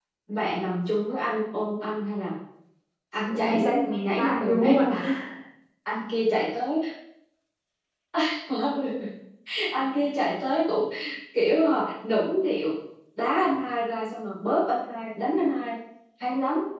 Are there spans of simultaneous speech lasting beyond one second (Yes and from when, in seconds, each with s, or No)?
Yes, from 3.3 s